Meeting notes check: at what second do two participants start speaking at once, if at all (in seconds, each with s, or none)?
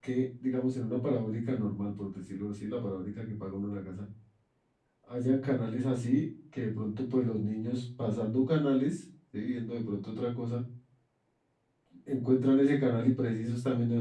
none